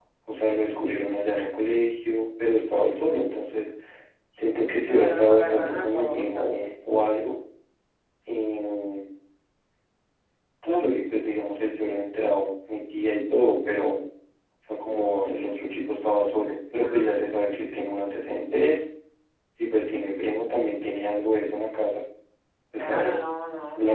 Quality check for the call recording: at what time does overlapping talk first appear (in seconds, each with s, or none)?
4.9 s